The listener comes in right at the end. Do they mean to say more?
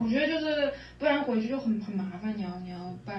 Yes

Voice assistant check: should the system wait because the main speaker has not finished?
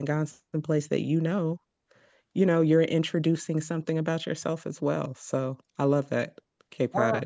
No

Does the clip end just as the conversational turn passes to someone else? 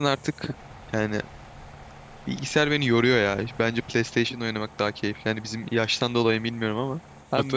No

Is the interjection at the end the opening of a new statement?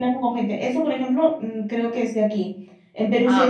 No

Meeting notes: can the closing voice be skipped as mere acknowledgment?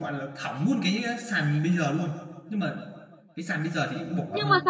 No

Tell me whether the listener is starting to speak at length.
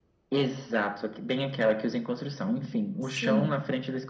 No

